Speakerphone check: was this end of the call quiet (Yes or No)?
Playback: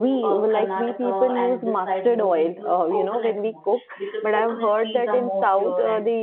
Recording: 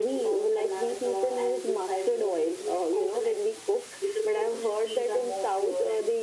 Yes